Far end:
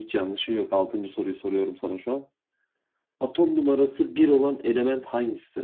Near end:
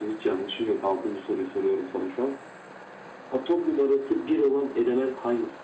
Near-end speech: none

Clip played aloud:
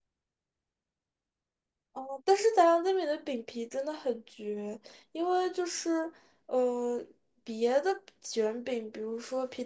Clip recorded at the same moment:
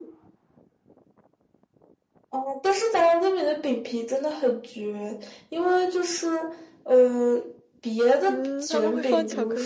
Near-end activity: present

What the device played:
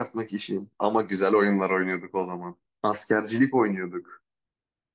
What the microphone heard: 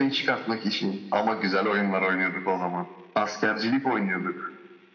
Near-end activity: none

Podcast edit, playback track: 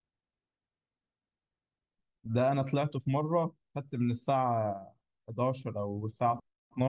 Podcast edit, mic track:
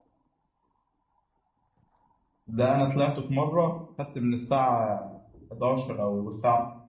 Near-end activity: none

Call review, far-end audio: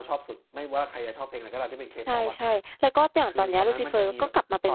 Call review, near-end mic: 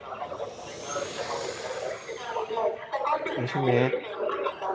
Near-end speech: present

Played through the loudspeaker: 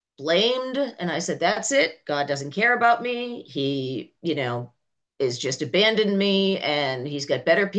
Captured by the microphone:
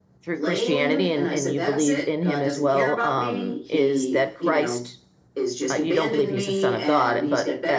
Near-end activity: present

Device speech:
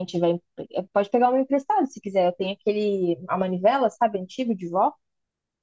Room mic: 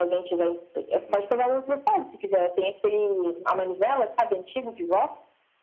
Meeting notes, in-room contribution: present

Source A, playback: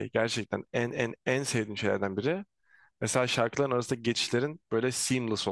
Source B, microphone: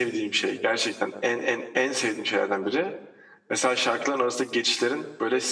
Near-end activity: none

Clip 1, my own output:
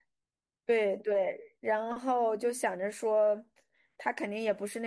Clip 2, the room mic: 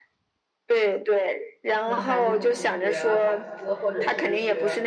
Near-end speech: present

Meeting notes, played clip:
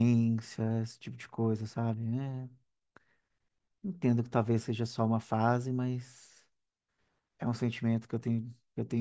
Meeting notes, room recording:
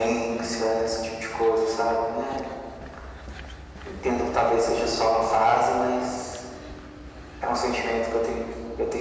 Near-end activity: none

